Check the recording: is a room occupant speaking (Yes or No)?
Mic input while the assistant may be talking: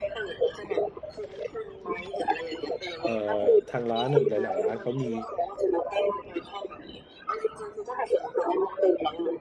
Yes